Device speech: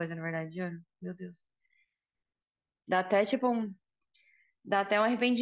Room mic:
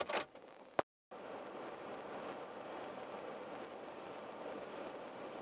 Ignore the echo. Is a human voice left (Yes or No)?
No